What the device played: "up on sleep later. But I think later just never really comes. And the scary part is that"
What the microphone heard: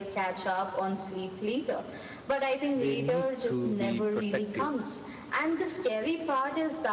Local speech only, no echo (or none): they need to be protective